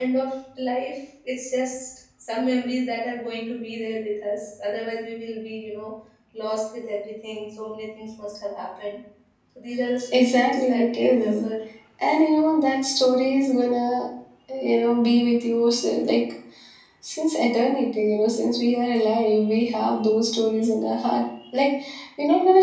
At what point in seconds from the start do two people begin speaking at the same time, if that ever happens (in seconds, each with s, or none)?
10.1 s